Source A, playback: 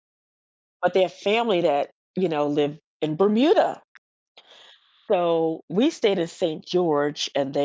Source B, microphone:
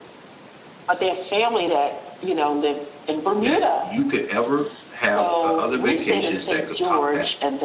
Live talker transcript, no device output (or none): that you could ever have o other vacations that could top that?